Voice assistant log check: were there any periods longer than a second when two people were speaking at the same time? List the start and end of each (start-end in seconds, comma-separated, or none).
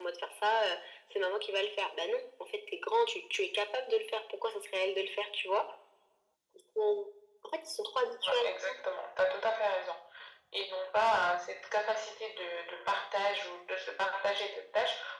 none